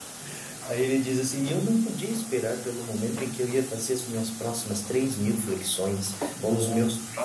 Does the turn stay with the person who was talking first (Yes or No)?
Yes